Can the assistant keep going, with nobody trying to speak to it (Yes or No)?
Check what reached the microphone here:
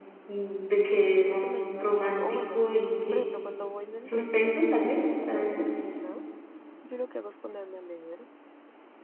No